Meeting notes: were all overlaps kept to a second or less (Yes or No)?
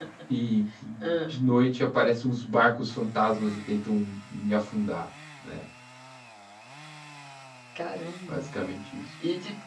Yes